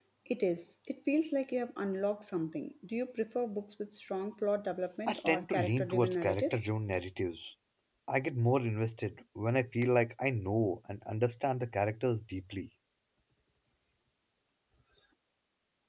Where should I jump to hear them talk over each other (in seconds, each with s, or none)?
5.1 s